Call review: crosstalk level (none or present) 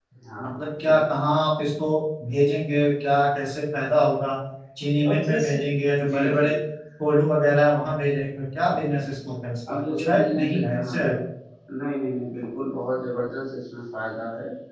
present